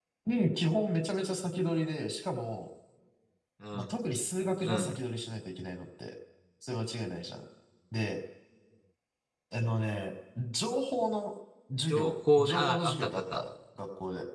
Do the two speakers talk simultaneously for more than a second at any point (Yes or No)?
Yes